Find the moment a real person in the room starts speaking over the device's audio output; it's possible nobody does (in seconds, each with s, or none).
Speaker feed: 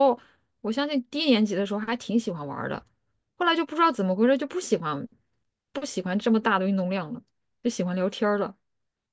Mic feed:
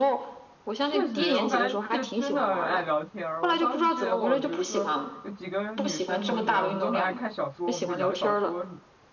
0.8 s